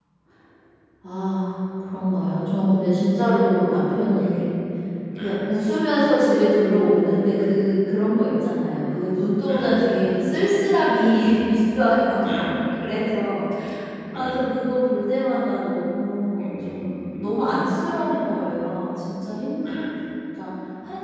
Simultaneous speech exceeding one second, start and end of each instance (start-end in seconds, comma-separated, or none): 16.4-17.6